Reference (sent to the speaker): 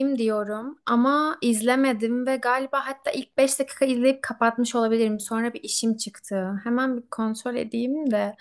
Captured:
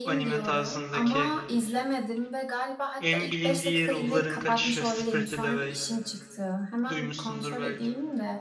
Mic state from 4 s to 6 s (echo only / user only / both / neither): both